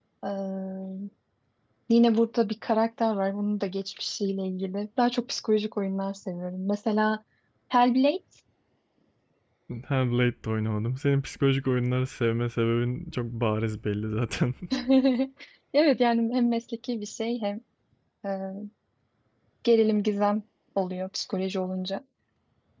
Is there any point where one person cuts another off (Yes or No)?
No